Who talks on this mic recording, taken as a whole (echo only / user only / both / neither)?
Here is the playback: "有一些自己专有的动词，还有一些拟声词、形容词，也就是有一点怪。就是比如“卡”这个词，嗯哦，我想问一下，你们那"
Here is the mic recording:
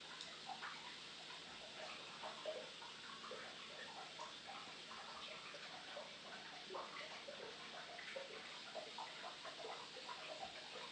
neither